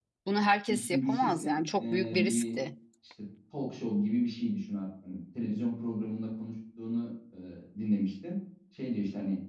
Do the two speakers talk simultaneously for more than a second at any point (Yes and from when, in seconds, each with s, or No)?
Yes, from 0.7 s